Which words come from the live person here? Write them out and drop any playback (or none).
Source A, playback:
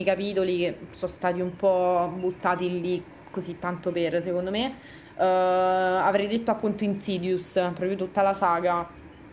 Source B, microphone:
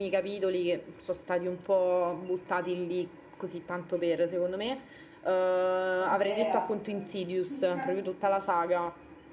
Banderas, tutto un cast assurdo